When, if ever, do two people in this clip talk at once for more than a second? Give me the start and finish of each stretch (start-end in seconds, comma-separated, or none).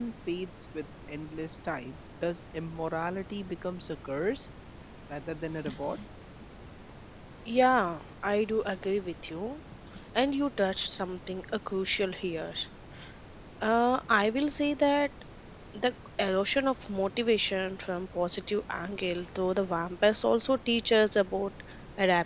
none